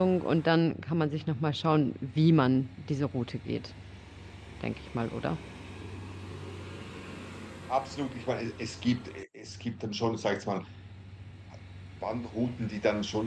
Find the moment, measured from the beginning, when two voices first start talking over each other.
none

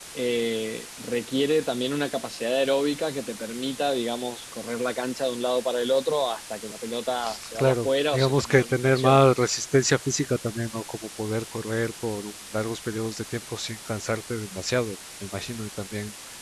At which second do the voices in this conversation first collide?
7.5 s

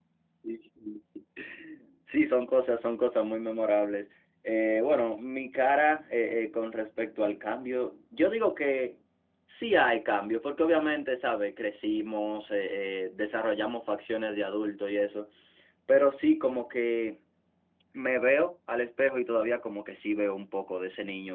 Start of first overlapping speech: none

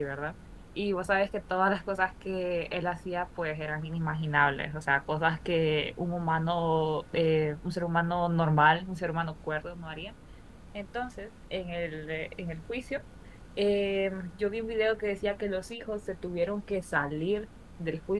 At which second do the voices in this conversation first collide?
none

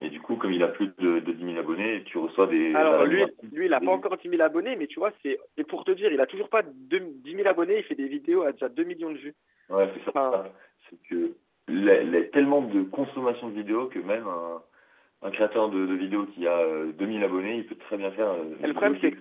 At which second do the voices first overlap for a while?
2.7 s

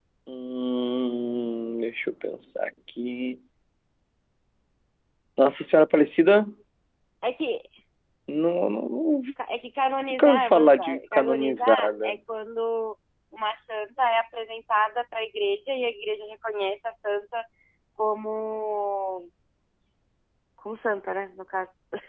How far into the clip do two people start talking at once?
10.1 s

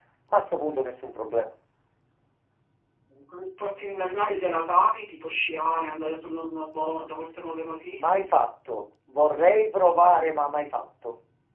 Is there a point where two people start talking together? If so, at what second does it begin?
none

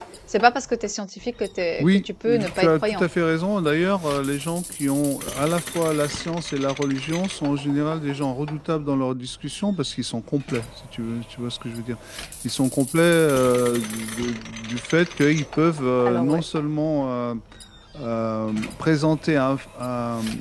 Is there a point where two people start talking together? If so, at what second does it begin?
1.8 s

